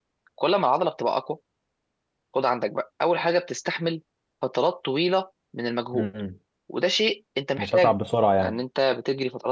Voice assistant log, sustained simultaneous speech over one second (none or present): none